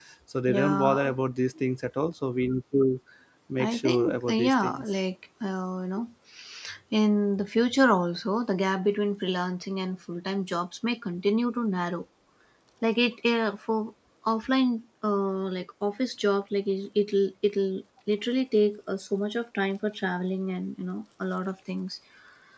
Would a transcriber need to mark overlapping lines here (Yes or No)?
Yes